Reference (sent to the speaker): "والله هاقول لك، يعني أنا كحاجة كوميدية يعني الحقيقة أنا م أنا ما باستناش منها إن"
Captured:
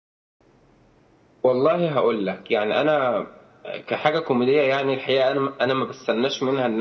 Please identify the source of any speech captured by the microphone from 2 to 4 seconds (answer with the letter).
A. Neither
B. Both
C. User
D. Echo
D